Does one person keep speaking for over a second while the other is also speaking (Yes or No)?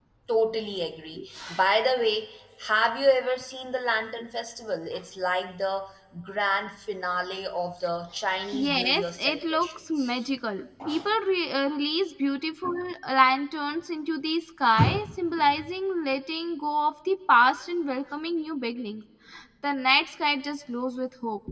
Yes